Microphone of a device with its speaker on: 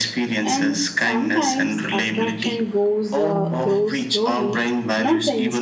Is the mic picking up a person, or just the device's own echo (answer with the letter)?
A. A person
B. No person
A